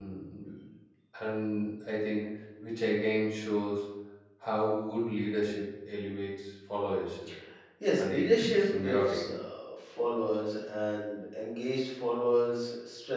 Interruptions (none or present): present